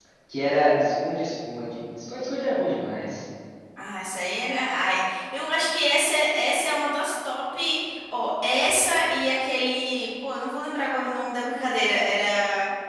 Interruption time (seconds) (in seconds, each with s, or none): none